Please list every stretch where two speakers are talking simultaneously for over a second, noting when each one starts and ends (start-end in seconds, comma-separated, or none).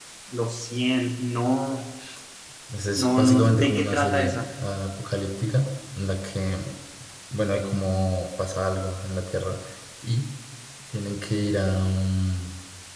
2.9-4.5